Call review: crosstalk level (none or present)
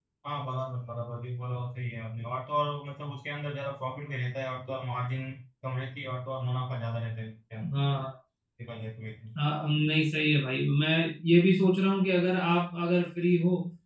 none